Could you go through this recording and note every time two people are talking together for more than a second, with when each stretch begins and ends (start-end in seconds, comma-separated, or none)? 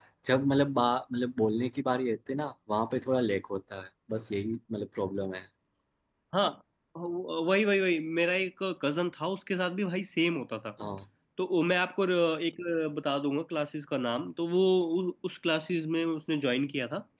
none